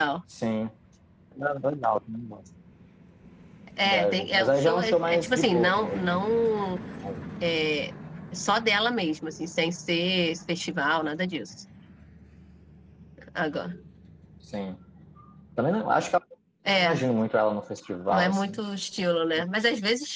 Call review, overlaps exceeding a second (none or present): present